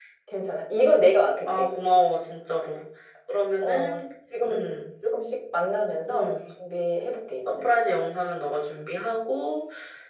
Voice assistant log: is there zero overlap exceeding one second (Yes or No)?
Yes